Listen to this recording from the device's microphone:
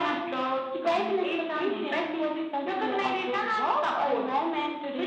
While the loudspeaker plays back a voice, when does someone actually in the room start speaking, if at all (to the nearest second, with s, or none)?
none